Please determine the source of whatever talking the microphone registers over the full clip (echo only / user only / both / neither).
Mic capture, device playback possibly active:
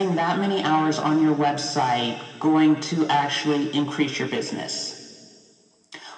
echo only